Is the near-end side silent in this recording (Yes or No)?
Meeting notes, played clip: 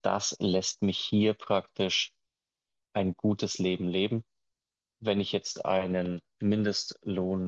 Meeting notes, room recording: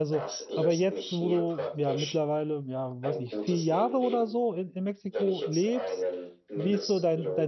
No